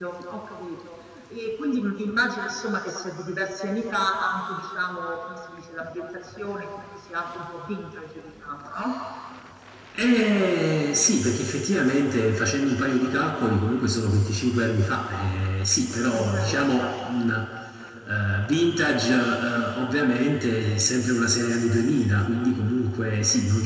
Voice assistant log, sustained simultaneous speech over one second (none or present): present